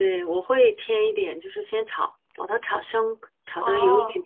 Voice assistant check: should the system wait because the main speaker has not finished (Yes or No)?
Yes